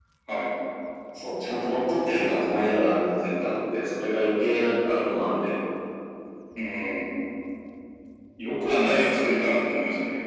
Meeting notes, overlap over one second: none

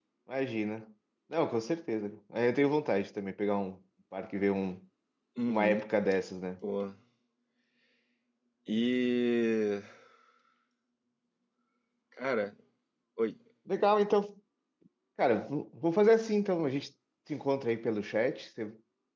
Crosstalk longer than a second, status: none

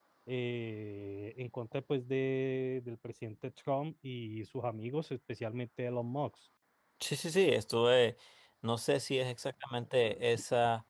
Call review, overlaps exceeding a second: none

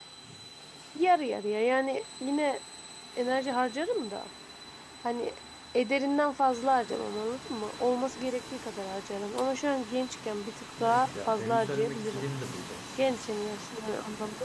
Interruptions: present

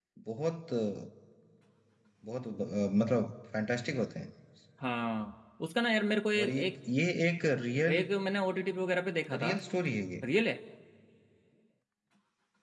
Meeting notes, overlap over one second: none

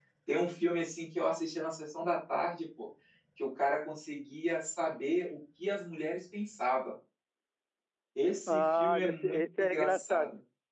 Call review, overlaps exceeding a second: present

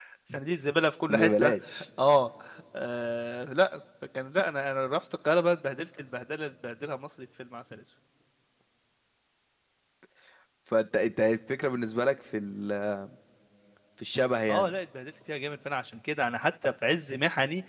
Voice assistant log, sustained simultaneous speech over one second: none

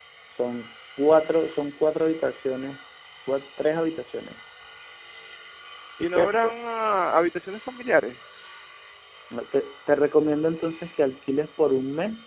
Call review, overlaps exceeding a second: none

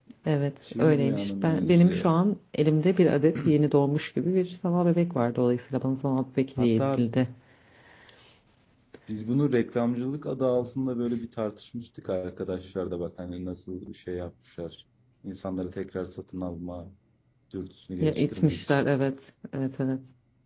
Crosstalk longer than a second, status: present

